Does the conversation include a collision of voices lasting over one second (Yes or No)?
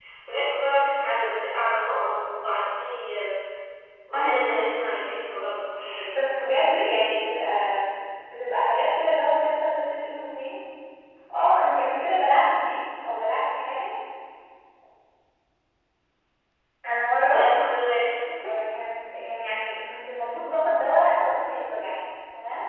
No